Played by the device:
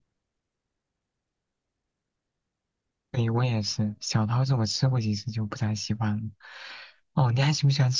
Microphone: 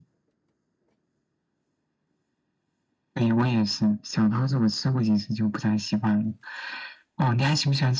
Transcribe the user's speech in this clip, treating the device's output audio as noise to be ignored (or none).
none